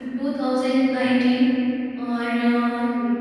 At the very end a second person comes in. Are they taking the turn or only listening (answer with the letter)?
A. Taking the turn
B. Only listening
B